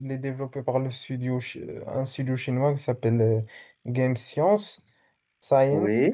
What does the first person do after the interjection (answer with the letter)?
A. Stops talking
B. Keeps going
B